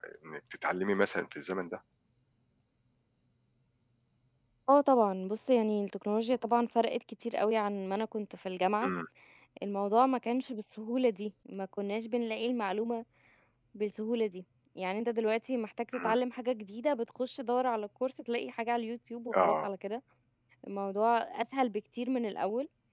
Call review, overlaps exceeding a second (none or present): none